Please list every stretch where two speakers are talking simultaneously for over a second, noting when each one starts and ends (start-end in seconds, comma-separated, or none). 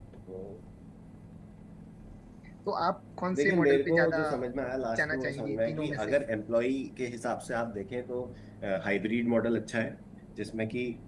3.4-6.1